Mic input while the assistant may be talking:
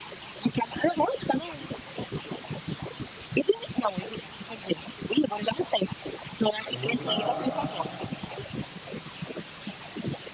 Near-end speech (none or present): present